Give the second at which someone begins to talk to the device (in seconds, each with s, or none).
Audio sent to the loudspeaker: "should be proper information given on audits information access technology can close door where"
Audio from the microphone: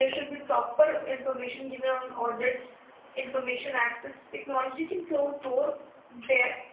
none